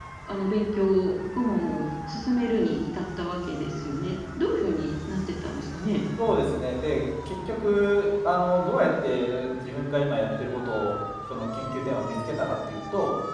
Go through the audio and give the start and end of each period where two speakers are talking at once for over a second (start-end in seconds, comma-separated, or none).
none